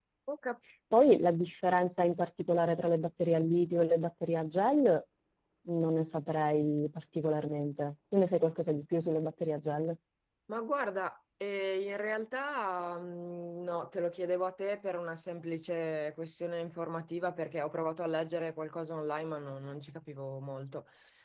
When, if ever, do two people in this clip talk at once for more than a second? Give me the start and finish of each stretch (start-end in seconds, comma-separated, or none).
none